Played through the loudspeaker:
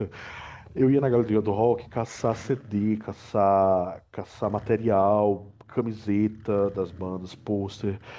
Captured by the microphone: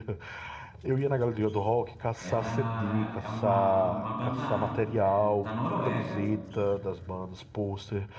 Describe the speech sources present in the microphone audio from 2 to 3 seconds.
both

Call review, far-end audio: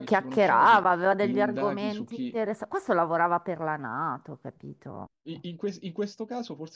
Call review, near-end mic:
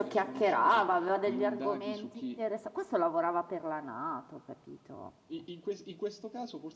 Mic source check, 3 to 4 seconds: echo only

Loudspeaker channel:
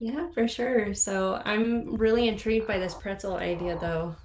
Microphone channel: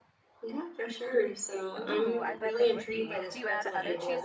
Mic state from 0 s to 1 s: echo only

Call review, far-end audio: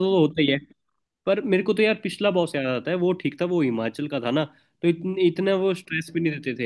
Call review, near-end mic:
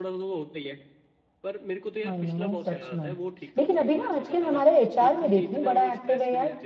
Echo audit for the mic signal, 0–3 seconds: both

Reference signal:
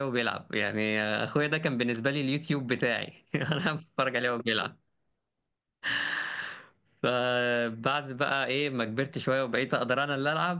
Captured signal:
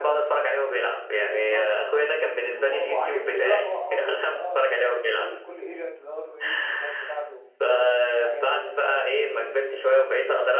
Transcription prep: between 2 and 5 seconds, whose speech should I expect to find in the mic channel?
both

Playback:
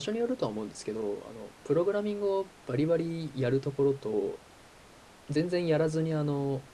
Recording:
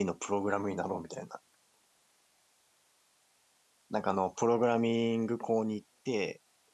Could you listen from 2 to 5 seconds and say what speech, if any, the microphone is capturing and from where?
user only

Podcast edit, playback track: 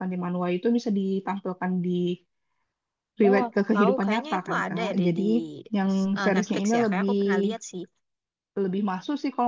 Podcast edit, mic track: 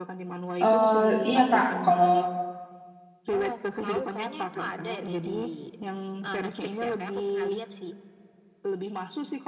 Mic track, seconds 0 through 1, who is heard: both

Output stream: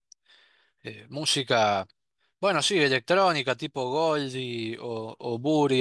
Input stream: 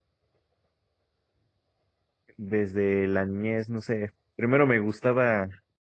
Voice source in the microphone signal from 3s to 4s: user only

